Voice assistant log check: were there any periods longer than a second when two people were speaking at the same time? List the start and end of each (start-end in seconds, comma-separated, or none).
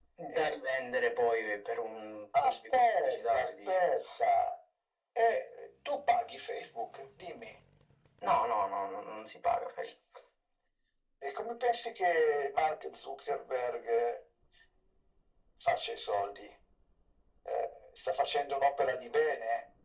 2.4-3.9